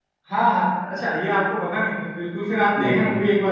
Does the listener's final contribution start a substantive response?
No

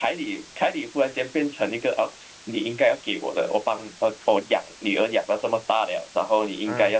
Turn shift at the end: No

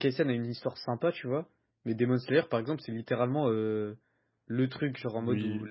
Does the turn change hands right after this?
No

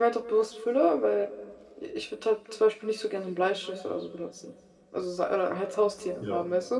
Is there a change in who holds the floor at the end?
Yes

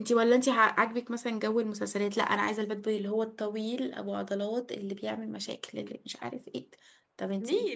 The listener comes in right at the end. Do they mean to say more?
Yes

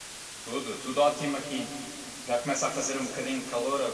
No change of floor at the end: Yes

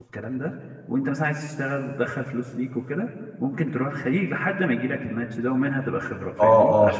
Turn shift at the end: Yes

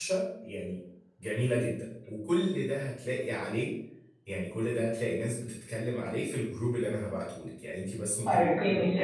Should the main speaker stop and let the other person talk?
Yes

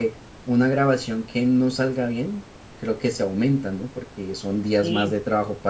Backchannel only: Yes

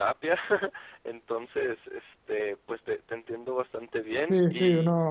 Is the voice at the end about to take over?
Yes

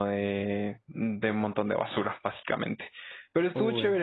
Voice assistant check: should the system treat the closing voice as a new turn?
No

